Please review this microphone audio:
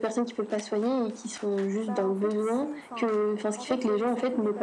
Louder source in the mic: echo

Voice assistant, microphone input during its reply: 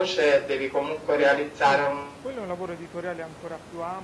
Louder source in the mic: echo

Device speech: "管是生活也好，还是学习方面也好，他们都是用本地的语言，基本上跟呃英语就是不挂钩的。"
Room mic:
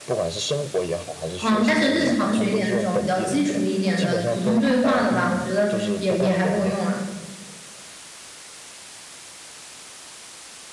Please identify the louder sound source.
user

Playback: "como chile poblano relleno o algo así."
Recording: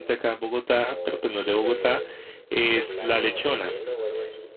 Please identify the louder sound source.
user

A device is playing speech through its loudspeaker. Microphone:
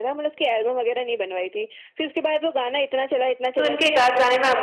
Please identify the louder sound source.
user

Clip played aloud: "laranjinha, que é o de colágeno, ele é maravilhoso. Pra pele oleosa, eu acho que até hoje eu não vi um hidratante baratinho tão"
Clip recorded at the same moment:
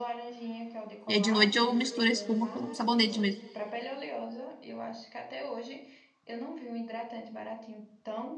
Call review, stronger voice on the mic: user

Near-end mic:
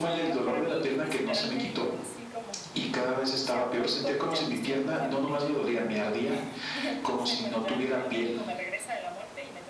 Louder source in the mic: echo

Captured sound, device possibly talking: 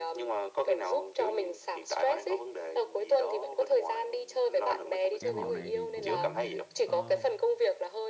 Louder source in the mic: echo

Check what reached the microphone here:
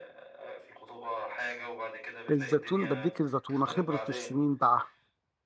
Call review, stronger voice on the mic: user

